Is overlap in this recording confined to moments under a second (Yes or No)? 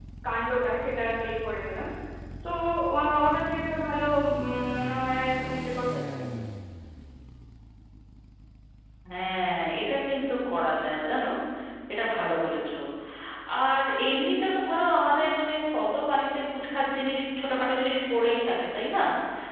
Yes